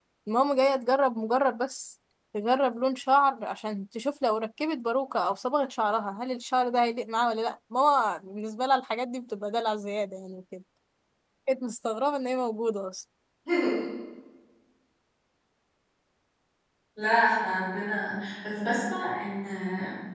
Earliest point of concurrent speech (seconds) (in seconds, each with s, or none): none